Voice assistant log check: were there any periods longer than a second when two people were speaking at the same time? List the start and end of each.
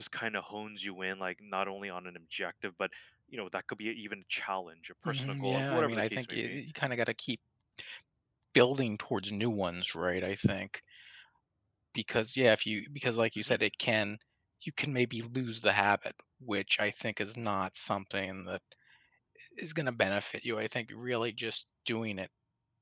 5.0-6.6

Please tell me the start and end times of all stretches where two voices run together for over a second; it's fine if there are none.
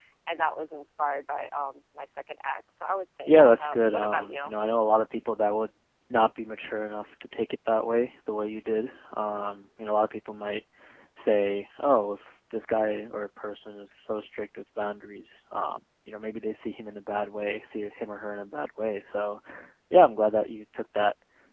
3.3-4.5

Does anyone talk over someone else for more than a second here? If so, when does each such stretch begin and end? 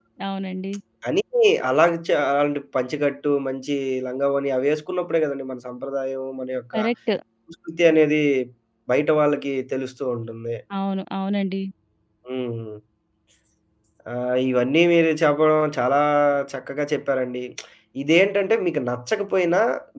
none

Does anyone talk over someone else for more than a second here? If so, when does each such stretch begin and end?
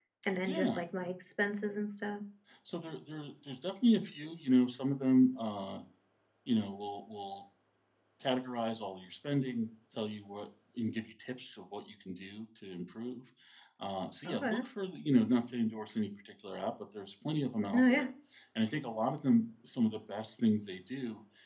none

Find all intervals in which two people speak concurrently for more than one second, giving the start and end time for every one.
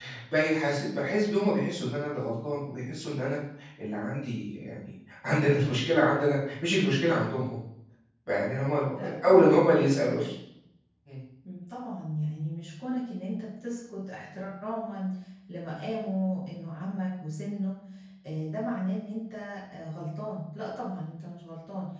9.0-10.3

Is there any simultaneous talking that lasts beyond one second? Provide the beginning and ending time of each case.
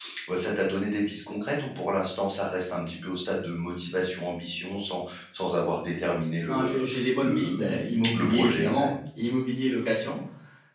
6.5-8.9

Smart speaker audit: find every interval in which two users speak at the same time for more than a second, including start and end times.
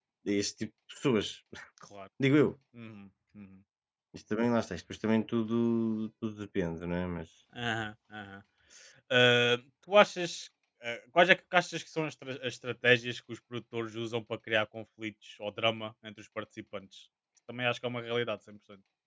none

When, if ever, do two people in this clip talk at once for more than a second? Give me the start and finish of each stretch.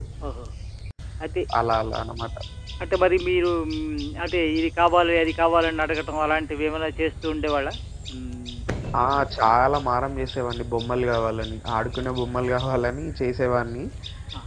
none

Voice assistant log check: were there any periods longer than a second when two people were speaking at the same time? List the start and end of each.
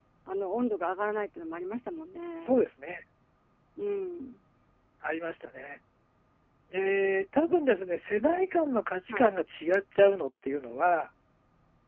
none

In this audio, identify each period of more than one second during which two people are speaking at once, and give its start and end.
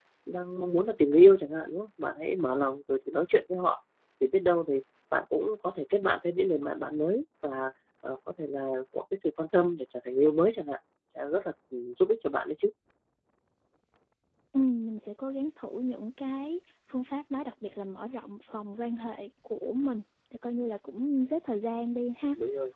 none

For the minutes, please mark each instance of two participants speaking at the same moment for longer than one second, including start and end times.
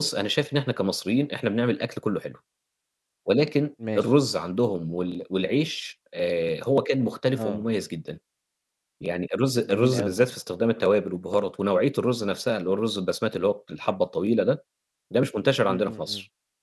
none

